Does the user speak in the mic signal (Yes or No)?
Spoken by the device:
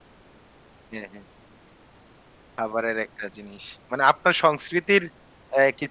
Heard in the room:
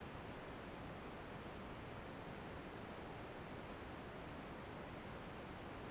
No